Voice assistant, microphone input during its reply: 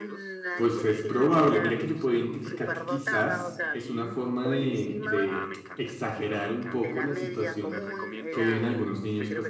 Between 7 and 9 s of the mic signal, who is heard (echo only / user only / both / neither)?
both